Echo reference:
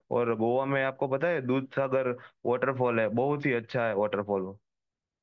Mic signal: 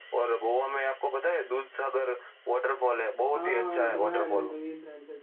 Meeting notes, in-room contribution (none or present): present